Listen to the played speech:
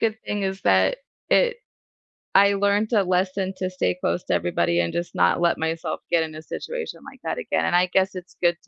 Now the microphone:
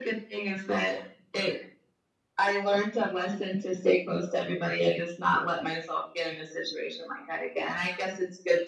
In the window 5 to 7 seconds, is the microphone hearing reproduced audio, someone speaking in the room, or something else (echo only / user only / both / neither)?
echo only